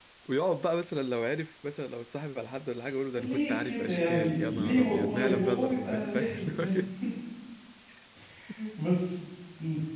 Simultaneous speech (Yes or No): Yes